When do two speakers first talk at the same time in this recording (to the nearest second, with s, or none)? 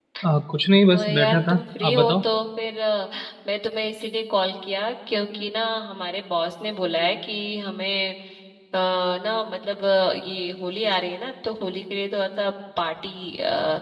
1 s